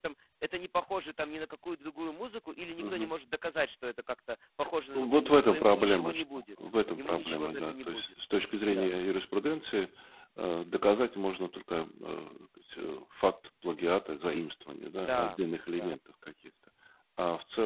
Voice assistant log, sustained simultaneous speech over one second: present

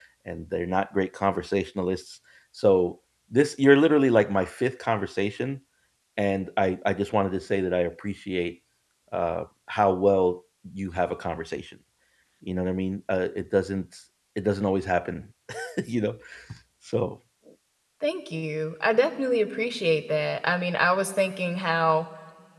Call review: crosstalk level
none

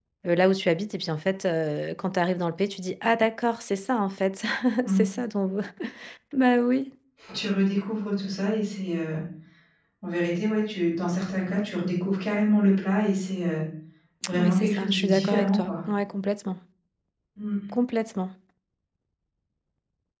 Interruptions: present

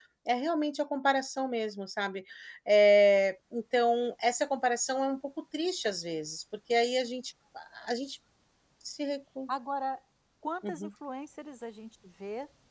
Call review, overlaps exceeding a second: none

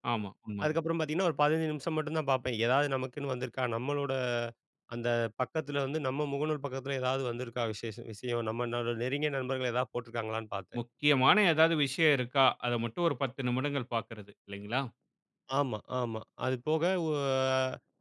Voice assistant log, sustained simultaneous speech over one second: none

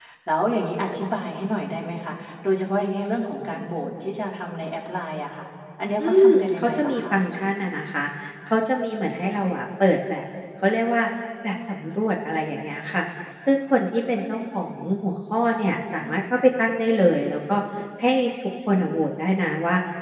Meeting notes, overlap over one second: present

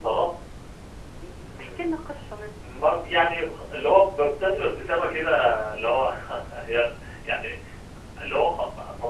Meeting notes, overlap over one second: none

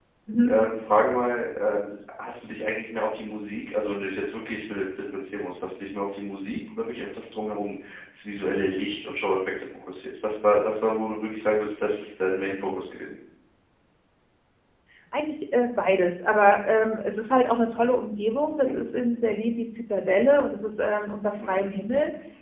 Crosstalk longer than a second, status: none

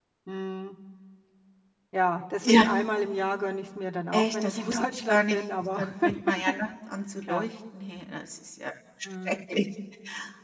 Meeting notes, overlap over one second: present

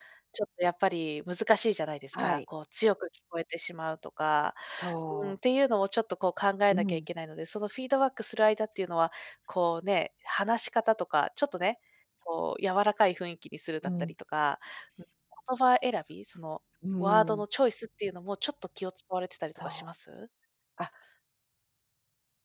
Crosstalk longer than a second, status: none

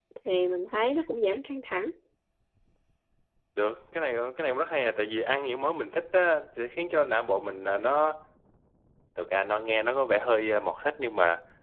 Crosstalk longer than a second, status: none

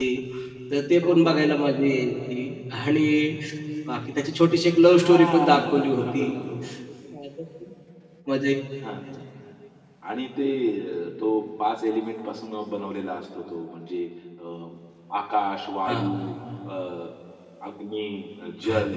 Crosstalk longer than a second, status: present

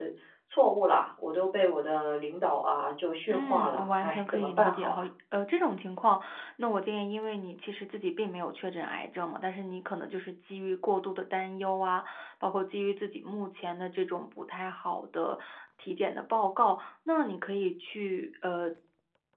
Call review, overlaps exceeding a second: present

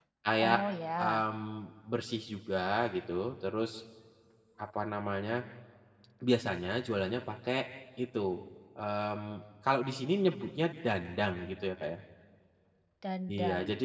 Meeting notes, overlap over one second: none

